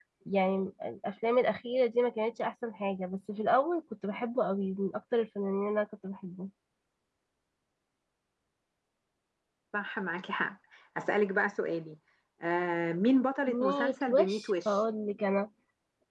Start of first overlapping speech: 13.5 s

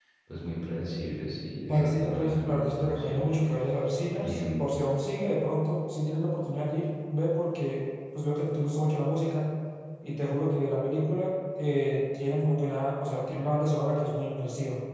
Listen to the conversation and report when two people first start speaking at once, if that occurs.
1.7 s

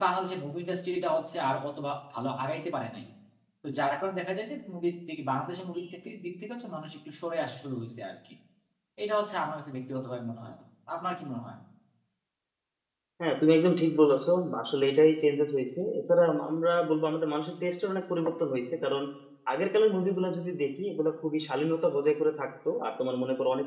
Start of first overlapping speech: none

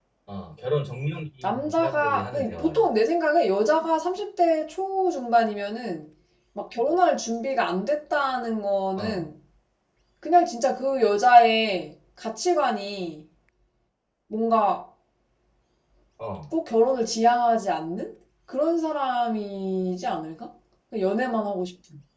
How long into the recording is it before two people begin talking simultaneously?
1.4 s

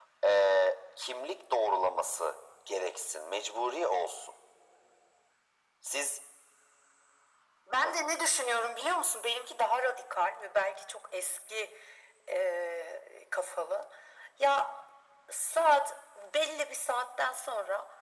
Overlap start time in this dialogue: none

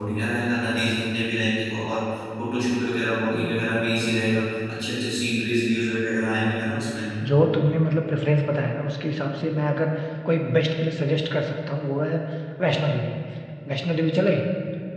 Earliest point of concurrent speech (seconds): none

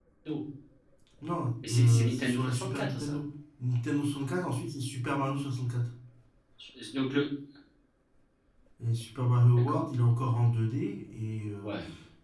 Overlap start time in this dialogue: 1.7 s

